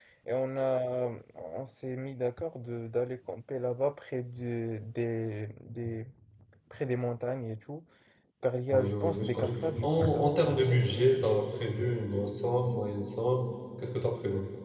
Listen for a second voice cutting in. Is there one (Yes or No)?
Yes